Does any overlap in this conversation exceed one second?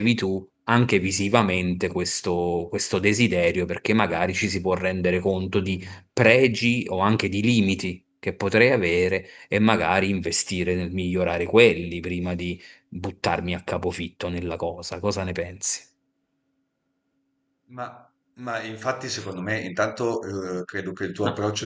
No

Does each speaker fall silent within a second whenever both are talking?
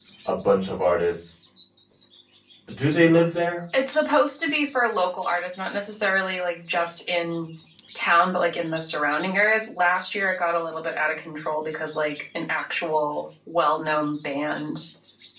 Yes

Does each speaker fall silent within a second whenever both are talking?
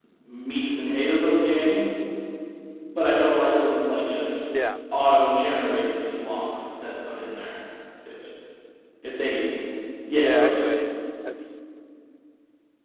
Yes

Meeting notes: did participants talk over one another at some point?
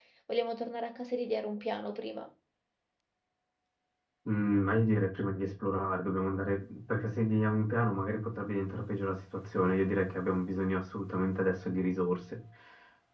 No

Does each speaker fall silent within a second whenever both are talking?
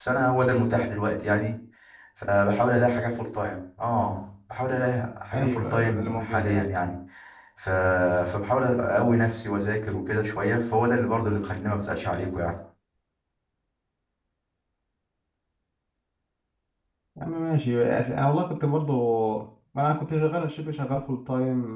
No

